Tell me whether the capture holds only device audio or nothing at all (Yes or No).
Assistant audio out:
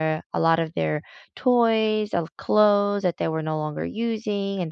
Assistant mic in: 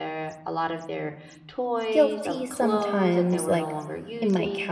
No